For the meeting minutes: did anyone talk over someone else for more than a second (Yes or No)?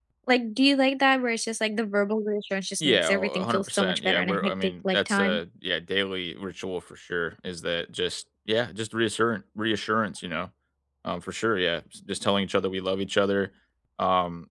Yes